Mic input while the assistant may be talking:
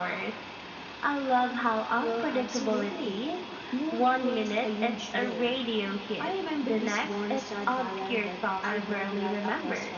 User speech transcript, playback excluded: none

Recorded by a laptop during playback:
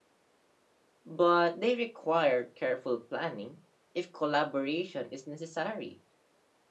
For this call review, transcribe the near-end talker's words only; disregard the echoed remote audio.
but they require careful planning if collaboration is necessary.

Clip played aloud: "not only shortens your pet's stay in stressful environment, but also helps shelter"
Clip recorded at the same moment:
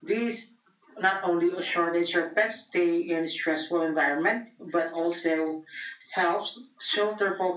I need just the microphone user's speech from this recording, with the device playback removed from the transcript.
none

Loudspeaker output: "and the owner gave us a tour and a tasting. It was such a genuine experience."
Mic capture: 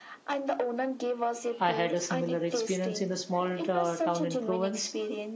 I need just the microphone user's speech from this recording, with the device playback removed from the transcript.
I had a similar experience in a small uh, town in Provence.

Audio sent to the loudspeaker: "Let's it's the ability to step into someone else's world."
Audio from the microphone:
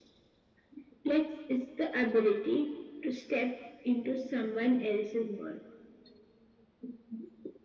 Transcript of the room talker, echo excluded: none

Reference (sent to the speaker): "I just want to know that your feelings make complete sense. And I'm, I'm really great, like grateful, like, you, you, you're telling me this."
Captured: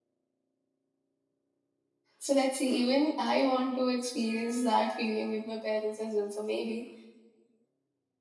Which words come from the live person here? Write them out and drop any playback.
So let's see. Even I want to experience that feeling with my parents as well. So maybe

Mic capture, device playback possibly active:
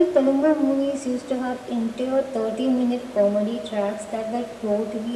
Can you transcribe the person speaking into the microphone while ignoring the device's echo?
none

